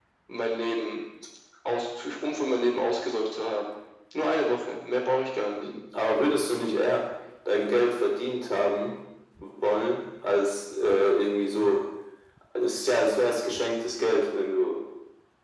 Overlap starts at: none

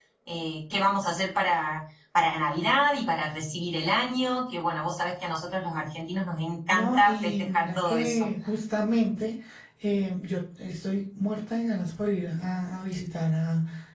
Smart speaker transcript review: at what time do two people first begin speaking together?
7 s

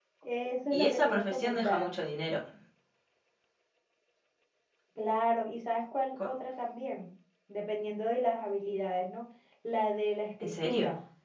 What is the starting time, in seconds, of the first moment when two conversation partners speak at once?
1 s

